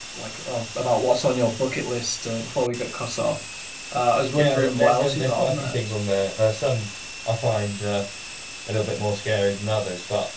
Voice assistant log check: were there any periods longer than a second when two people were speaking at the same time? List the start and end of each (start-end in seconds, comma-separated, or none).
4.4-5.8